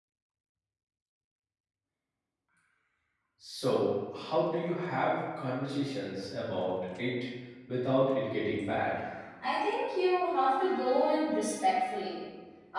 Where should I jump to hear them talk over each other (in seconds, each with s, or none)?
none